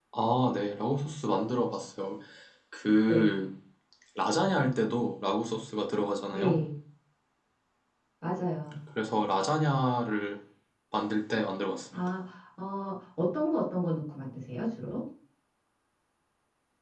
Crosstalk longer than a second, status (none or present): none